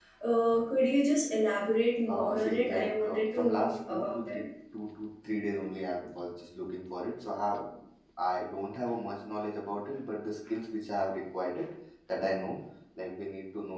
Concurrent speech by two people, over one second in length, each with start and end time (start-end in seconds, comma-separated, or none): 2.1-4.4